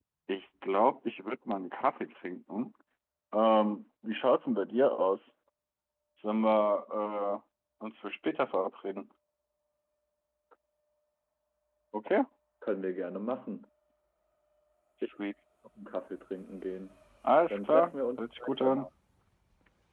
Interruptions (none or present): present